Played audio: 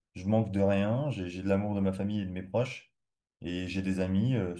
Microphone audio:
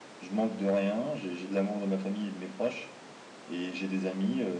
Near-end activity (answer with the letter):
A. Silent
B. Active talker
A